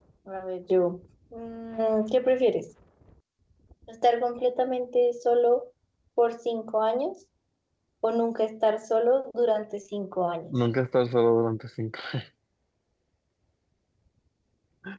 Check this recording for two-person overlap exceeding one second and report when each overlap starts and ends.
none

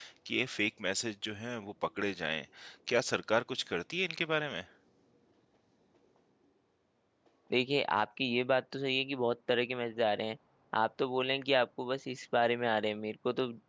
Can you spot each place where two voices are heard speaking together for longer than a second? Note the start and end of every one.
none

